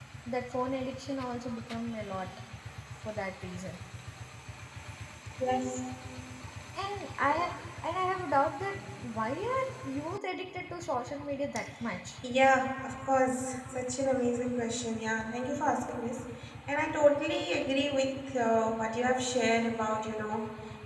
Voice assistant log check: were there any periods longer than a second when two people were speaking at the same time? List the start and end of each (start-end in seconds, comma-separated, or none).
none